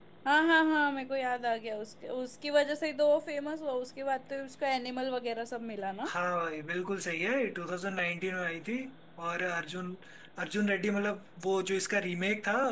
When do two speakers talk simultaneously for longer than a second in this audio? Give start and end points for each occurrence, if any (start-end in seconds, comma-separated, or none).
none